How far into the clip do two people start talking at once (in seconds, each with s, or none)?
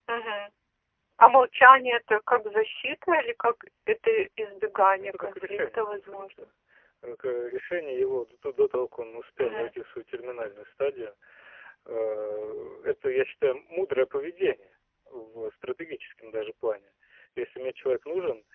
5.0 s